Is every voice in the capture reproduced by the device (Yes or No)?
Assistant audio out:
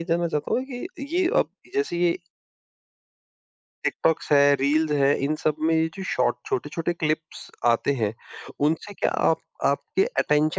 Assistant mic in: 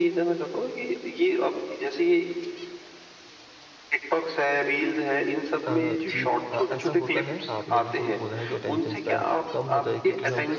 No